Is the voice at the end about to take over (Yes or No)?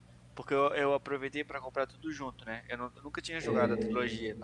No